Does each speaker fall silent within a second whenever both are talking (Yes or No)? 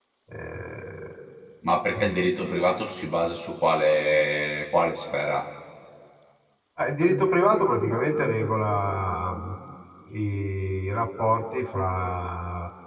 Yes